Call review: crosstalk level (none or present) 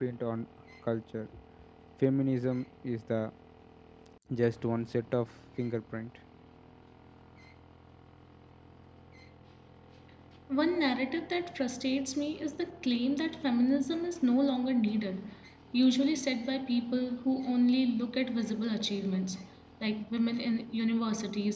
none